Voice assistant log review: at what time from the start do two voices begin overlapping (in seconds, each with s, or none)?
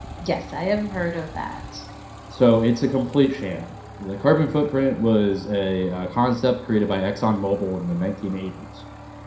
none